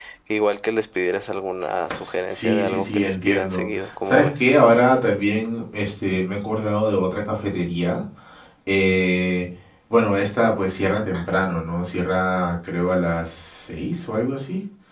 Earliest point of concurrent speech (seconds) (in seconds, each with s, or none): 2.0 s